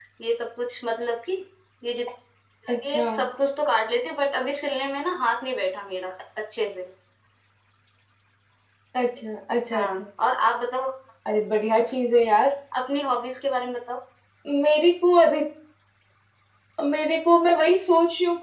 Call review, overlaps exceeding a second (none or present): none